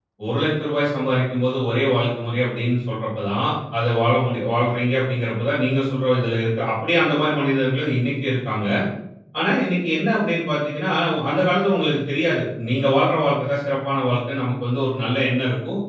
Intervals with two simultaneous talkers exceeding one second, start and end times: none

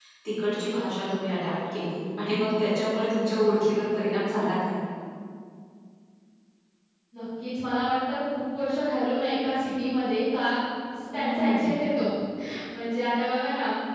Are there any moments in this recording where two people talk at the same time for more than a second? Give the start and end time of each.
none

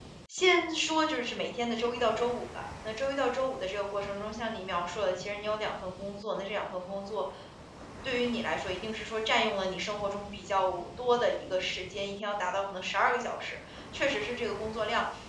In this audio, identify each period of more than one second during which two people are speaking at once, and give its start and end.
none

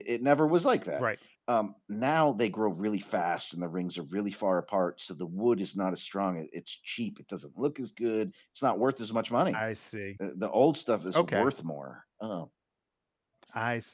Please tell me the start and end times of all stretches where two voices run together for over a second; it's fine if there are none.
none

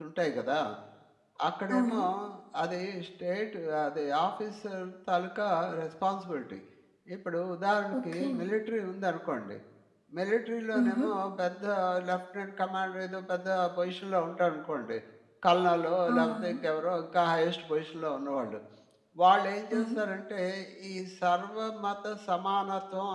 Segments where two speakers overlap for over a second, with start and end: none

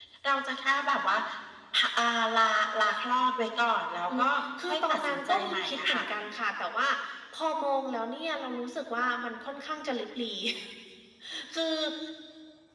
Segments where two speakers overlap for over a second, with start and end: 4.7-6.0

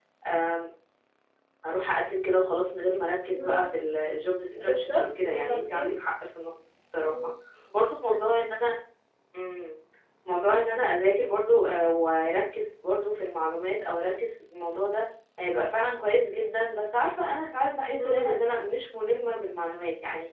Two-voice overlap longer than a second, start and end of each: 4.6-5.9

